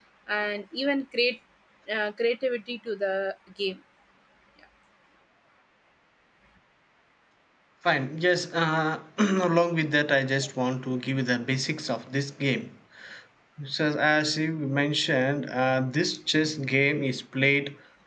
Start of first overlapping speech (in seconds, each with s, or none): none